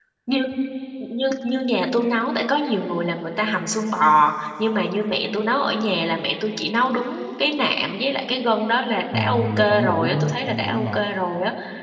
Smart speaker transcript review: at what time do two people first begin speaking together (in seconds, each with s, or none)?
9.1 s